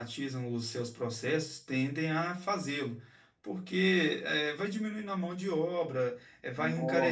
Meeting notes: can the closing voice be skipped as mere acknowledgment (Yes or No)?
Yes